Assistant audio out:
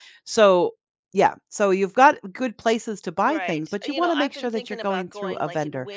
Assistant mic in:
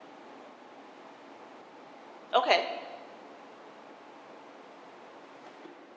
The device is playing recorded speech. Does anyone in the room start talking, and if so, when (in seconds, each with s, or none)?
2.3 s